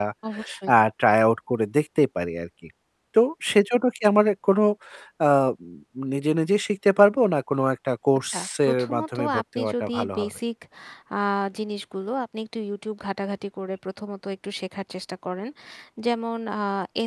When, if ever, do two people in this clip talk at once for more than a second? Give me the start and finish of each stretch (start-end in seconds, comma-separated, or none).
8.3-10.3